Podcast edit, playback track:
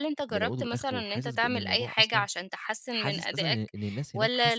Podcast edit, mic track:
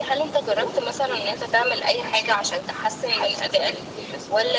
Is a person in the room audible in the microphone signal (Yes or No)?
No